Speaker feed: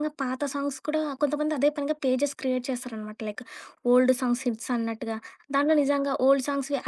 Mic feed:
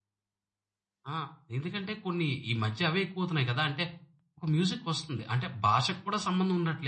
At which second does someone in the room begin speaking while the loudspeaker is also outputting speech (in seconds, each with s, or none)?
1.1 s